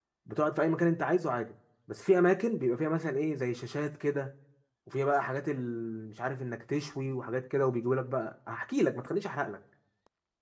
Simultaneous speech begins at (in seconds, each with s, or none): none